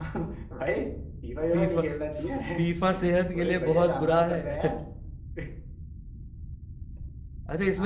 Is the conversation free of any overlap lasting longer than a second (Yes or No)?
No